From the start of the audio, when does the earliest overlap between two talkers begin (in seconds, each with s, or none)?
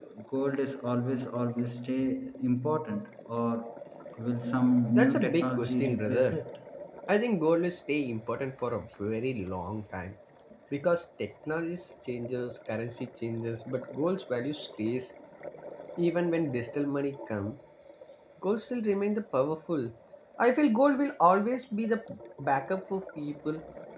4.9 s